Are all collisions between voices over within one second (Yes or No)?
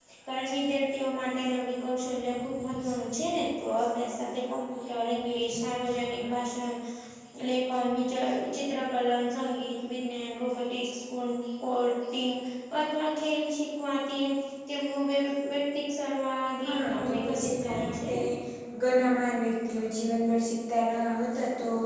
No